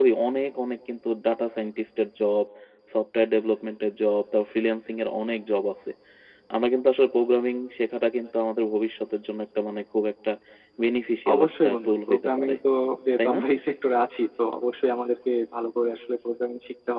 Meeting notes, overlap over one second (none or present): present